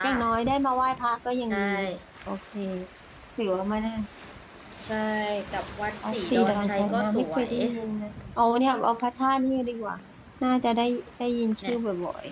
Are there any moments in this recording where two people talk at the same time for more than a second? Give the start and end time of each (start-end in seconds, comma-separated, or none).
6.0-7.5